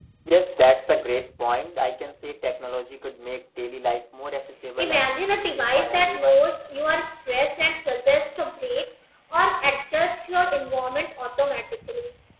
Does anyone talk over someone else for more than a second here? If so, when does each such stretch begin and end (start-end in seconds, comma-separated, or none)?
4.8-6.4